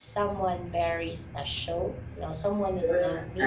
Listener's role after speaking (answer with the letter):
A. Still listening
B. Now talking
B